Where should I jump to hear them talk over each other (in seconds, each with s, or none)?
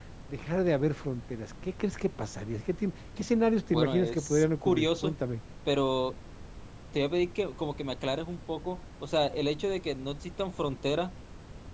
3.7 s